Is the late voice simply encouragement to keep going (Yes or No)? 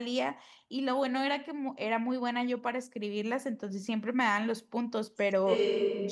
Yes